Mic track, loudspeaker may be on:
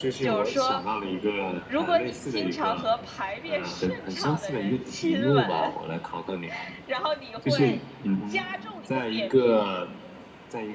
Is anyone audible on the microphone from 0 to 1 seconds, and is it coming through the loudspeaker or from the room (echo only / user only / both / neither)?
both